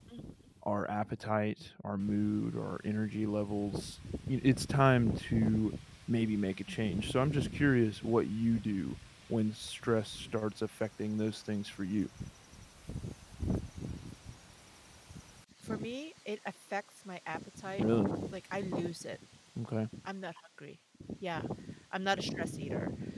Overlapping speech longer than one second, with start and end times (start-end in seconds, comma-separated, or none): none